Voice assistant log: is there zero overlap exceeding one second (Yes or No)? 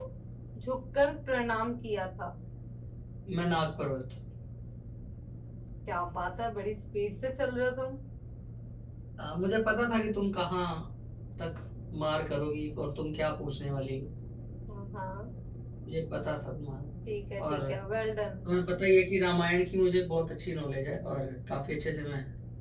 Yes